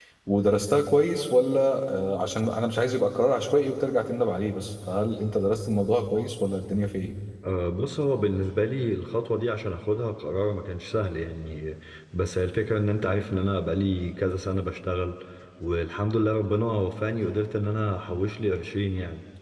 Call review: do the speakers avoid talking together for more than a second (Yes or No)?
Yes